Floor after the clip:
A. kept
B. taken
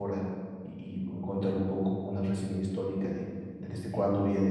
A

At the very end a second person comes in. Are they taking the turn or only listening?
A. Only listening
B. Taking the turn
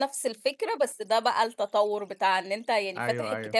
A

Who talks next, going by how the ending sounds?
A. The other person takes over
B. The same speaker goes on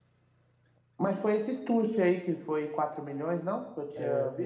A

